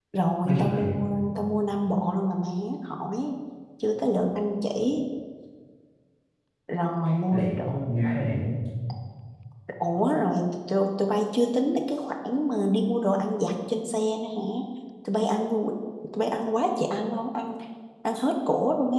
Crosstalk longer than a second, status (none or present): none